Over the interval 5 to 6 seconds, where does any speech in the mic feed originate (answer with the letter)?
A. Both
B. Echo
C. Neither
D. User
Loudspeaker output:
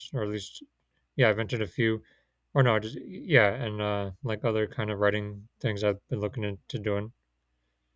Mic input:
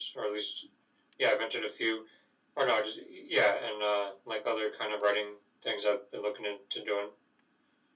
B